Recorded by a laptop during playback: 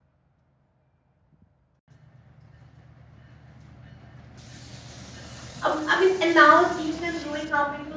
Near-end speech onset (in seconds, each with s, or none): 5.6 s